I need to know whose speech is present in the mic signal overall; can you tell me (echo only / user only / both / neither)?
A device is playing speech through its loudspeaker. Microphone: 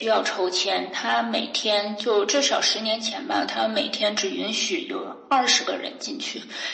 echo only